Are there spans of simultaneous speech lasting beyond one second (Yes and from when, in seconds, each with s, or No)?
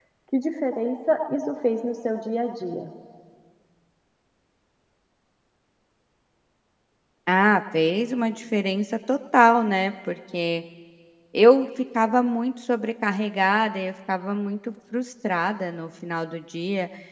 No